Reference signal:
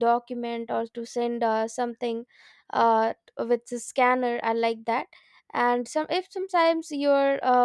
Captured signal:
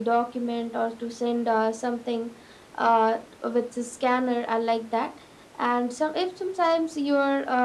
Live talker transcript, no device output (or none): none